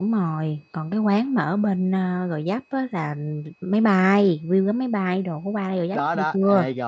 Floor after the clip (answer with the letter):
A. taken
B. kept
A